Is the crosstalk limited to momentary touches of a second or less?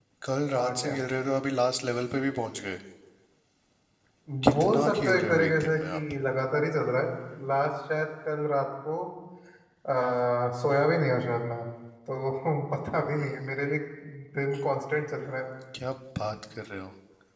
No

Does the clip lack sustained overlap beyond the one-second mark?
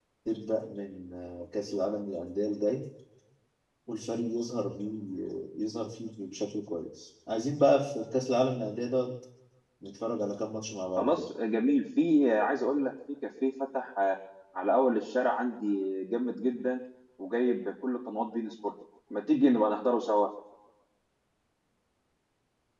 Yes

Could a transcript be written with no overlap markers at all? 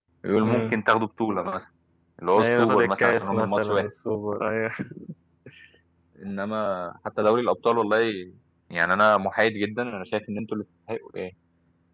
No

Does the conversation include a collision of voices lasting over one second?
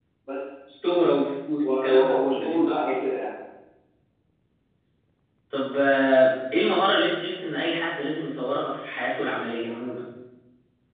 Yes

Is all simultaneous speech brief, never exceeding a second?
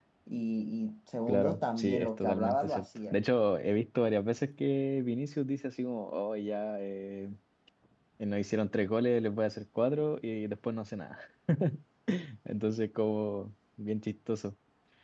No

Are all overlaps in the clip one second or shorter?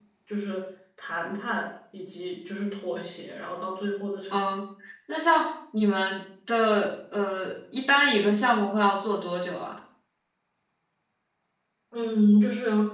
Yes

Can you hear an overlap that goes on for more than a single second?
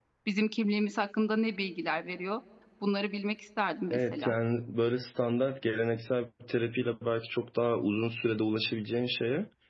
No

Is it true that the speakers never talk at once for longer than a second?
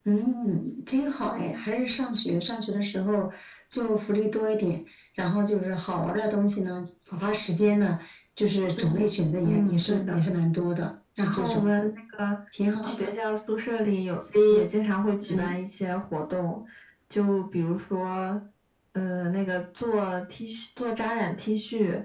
No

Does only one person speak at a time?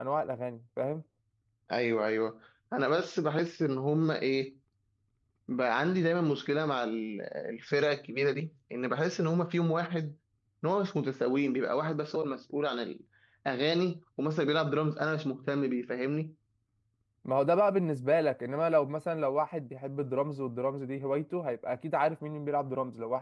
Yes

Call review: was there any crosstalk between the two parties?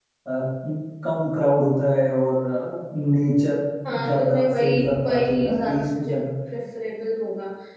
Yes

